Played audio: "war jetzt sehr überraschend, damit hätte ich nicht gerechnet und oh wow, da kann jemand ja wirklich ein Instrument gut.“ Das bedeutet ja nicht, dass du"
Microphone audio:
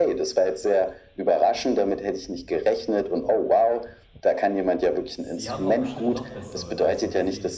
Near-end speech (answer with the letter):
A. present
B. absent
A